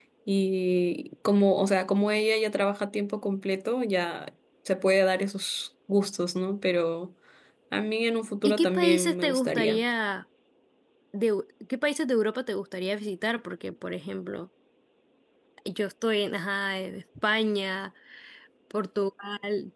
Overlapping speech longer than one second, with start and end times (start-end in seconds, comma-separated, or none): 8.4-9.8